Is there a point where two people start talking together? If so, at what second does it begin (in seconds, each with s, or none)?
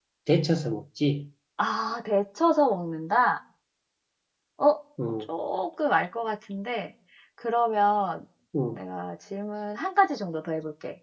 none